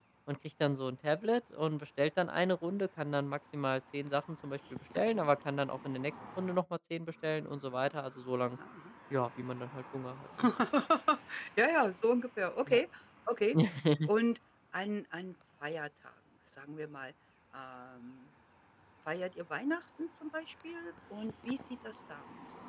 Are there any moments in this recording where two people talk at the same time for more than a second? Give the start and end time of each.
none

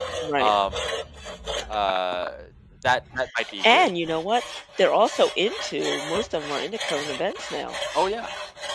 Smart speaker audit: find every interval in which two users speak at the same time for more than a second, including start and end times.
none

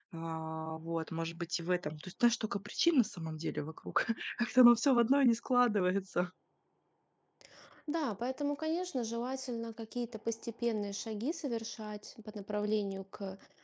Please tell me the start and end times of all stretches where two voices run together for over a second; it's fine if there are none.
none

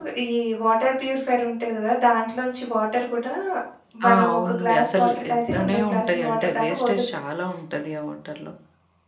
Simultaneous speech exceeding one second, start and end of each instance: 4.1-7.0

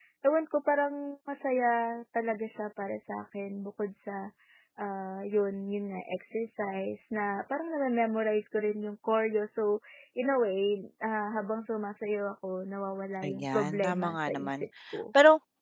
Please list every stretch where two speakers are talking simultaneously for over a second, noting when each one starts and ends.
13.2-14.6

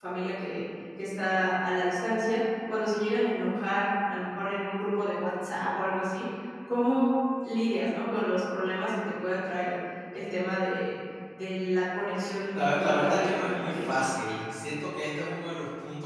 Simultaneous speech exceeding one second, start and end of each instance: 12.5-13.8

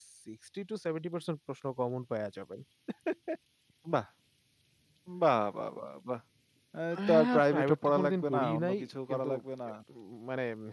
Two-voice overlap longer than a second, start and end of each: 7.0-9.3

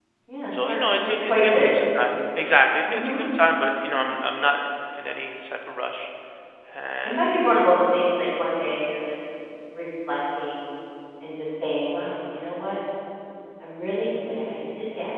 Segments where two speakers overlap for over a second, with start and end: 0.5-1.9

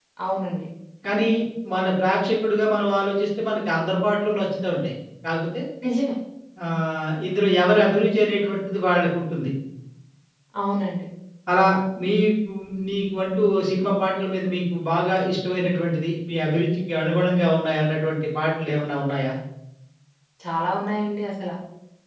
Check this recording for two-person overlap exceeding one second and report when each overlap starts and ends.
none

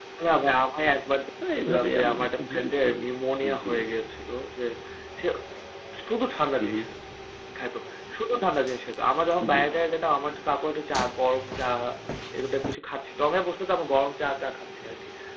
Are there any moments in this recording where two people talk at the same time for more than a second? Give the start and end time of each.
1.6-2.9

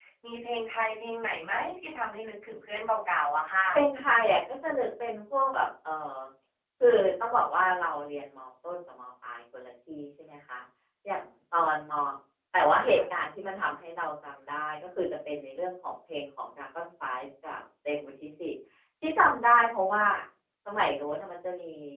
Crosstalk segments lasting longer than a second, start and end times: none

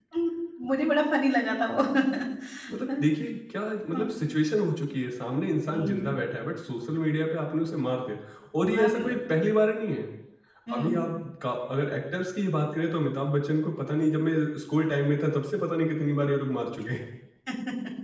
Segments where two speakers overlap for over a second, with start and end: none

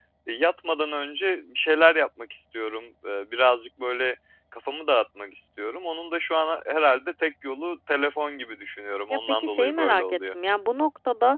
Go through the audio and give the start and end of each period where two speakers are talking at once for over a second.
9.1-10.3

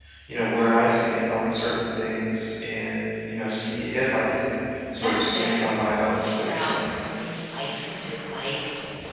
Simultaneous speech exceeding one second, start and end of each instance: 5.0-6.9

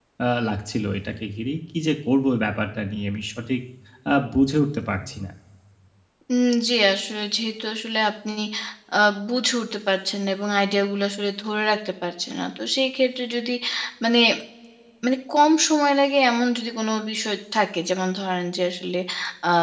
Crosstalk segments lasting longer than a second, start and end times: none

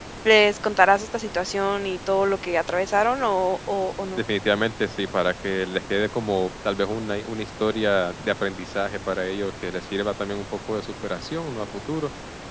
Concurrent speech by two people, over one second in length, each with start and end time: none

